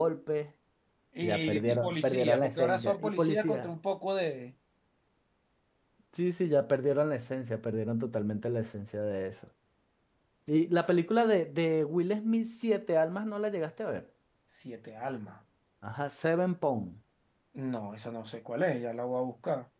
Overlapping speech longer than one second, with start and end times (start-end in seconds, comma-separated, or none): 1.2-3.7